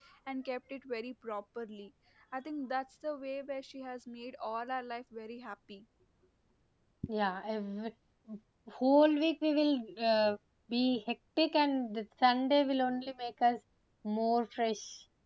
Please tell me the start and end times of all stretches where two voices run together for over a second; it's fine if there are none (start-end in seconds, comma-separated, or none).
none